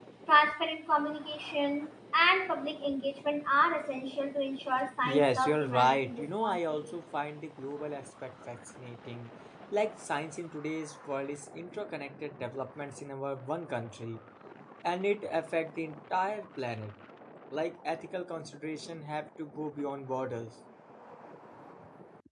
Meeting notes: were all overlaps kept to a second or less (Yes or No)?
No